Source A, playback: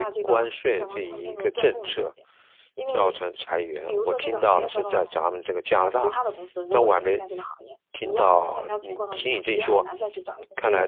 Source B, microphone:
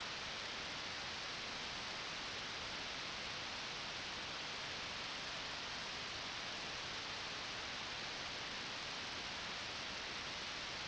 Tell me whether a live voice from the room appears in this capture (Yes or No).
No